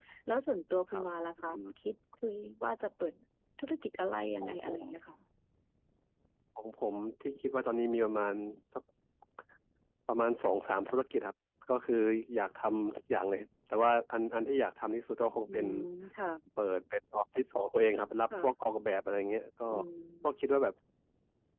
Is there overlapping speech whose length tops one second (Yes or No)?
No